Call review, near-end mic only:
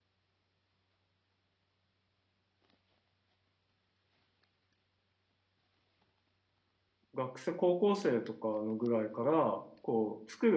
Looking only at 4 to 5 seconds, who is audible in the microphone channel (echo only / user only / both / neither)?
neither